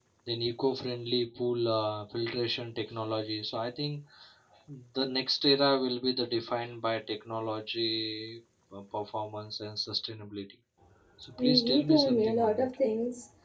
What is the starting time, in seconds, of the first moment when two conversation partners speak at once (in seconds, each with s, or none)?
11.4 s